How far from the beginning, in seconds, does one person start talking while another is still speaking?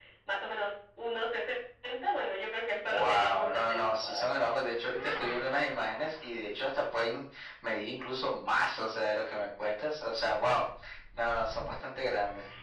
3 s

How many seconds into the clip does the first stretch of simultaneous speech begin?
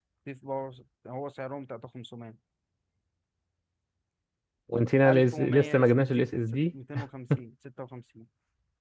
5 s

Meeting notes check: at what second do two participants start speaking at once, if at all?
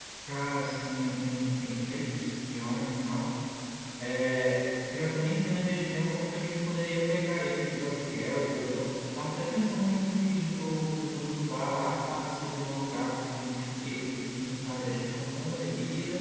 none

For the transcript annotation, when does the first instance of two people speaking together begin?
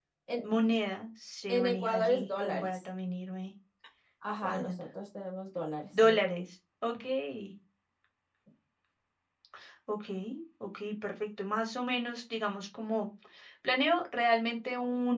1 s

